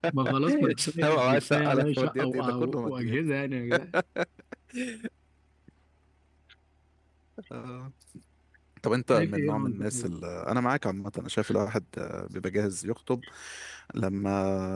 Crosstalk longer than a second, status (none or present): present